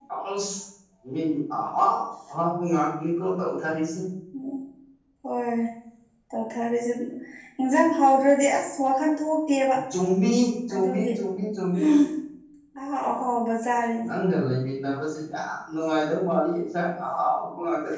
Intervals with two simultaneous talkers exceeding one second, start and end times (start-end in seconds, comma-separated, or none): none